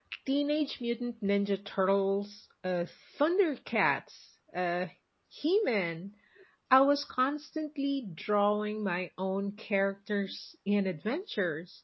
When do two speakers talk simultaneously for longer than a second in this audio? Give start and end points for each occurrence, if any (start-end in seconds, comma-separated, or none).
none